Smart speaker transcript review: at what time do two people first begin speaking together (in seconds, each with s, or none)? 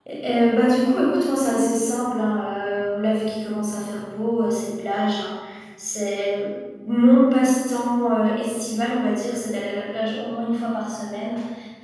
none